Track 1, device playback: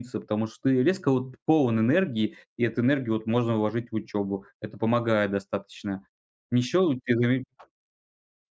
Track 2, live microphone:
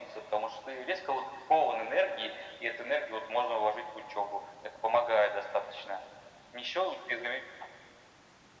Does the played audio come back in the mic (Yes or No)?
Yes